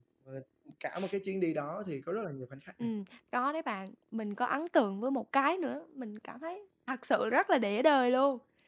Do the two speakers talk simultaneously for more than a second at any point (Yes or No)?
No